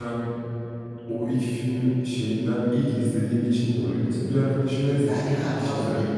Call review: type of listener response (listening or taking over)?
taking over